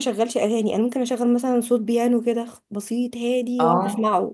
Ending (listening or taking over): listening